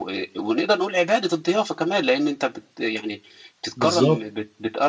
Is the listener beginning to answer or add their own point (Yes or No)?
No